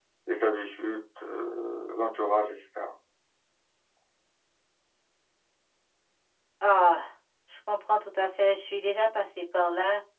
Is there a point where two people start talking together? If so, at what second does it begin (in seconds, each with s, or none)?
none